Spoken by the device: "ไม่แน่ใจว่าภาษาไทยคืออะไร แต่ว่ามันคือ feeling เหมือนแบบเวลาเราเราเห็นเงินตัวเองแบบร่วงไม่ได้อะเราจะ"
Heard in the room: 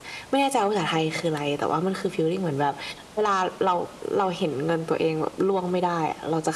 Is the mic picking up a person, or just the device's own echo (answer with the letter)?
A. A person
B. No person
B